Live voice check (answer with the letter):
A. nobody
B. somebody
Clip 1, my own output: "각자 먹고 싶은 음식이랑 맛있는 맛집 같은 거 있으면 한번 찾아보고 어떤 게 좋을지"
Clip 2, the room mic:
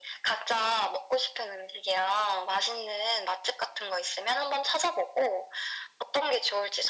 A